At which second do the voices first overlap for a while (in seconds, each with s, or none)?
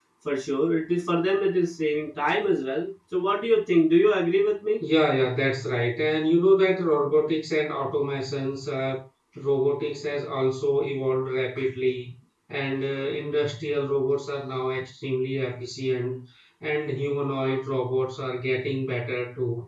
none